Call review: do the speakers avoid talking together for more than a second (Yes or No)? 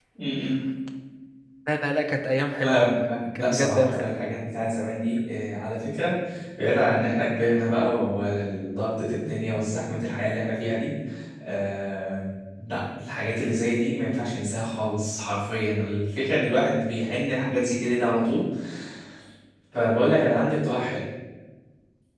No